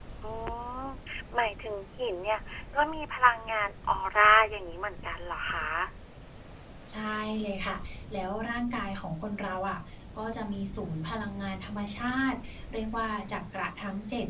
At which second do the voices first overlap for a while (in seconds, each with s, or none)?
none